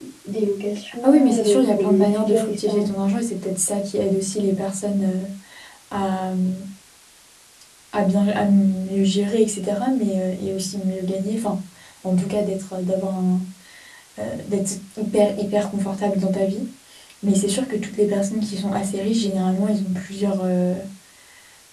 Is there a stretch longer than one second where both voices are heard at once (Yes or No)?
Yes